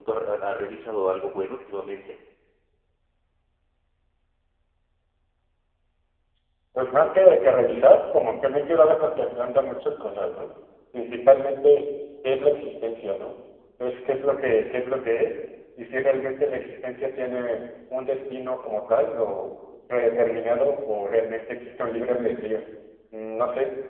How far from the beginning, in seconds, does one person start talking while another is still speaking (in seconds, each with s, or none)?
none